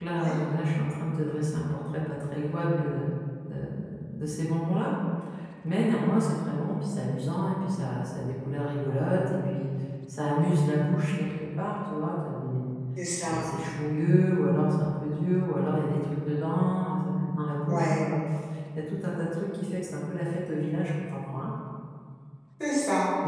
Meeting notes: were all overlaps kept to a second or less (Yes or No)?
Yes